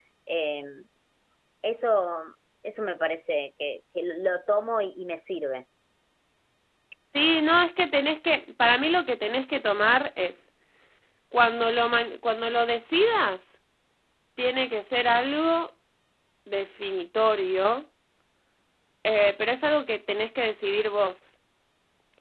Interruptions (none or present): none